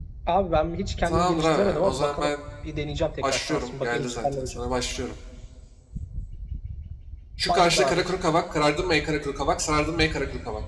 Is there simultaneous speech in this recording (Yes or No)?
Yes